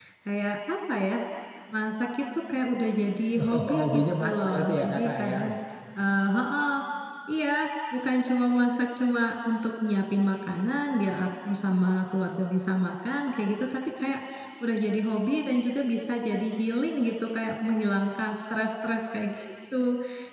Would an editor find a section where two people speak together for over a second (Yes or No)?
Yes